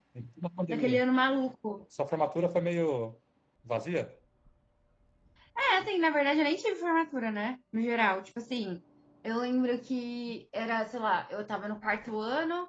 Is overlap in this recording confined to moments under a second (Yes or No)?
Yes